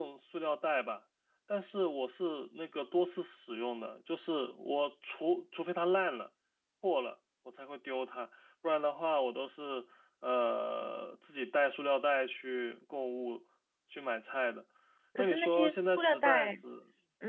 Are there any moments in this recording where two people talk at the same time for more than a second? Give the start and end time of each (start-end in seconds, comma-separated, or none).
15.2-16.5